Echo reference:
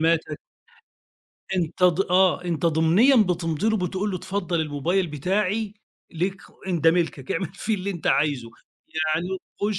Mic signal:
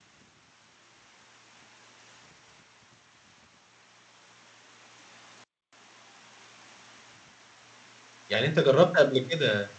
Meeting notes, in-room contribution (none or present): present